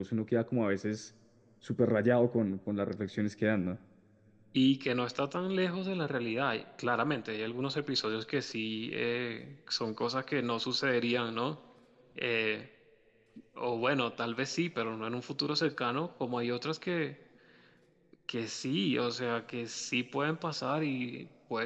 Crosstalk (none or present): none